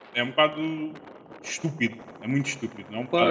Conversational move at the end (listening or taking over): taking over